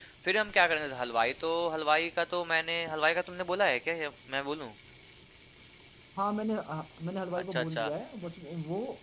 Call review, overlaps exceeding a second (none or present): none